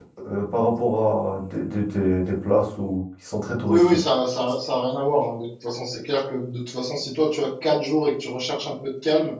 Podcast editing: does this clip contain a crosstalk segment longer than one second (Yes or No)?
No